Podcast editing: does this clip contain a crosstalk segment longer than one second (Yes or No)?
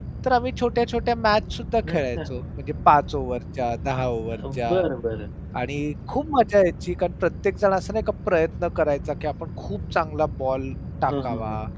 No